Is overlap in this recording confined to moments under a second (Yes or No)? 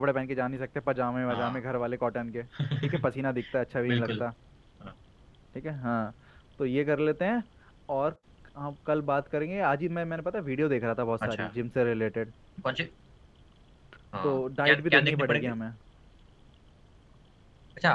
No